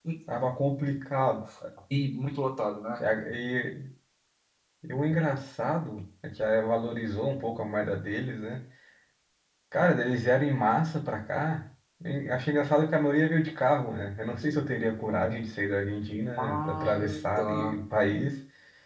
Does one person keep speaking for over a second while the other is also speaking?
Yes, from 16.4 s

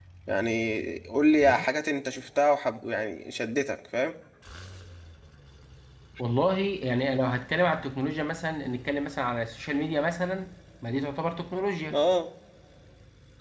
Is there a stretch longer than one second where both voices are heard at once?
No

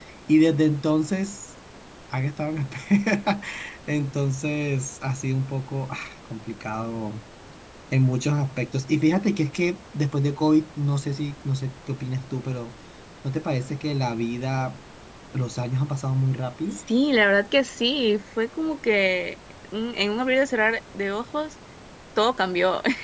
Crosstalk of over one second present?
No

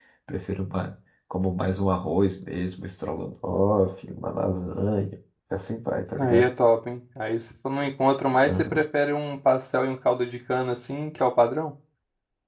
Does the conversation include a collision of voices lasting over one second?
No

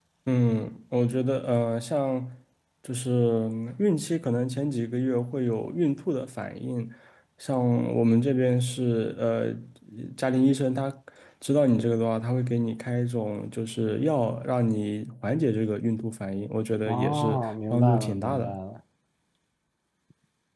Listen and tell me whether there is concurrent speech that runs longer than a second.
Yes, from 16.9 s

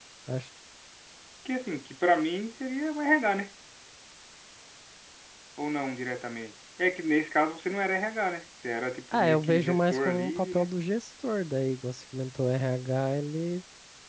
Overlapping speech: Yes, from 9.1 s

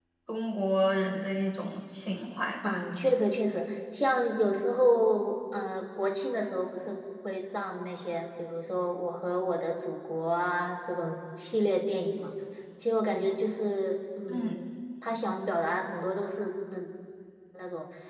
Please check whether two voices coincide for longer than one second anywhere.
No

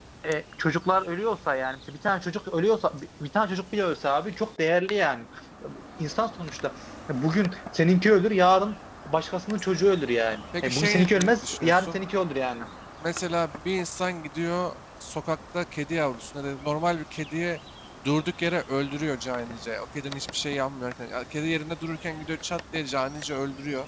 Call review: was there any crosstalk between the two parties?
Yes, from 10.3 s

